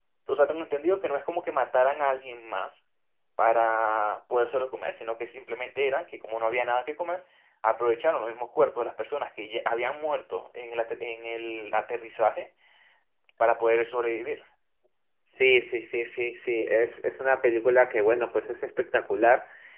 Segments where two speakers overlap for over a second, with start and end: none

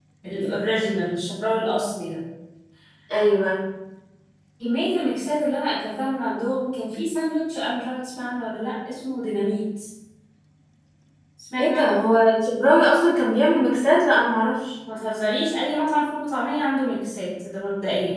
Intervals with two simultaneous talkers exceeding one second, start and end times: none

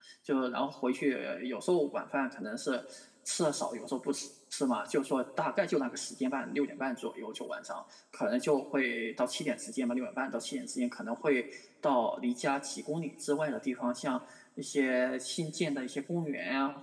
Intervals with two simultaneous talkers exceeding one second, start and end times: none

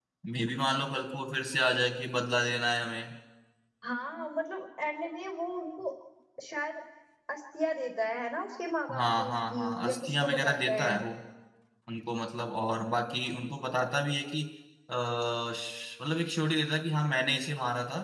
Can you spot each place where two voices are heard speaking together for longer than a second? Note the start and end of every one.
9.0-10.9

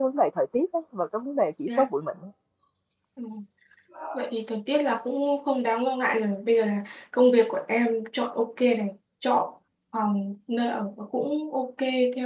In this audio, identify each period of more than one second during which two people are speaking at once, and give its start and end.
none

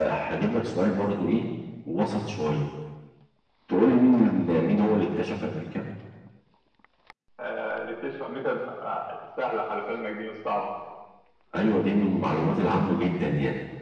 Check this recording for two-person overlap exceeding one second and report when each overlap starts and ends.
none

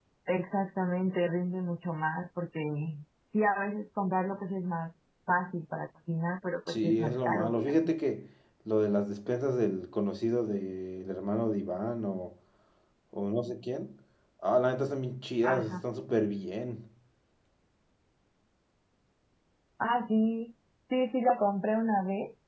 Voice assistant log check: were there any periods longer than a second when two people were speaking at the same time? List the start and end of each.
6.7-7.9

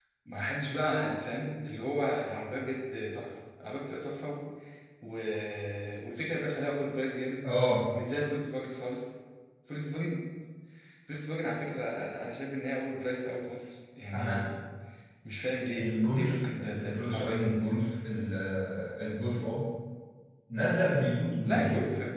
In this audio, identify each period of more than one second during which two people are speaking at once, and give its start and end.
15.8-17.5

